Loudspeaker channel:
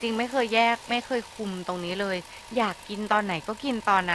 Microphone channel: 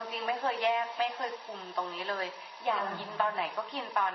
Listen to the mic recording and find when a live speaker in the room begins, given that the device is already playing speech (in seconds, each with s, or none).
2.7 s